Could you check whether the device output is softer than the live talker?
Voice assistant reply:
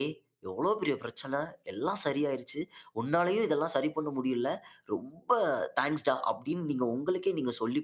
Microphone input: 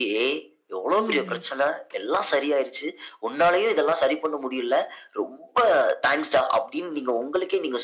No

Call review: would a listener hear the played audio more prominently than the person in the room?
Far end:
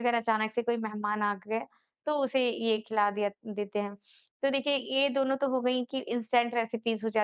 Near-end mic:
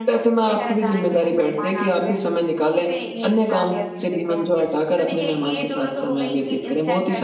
No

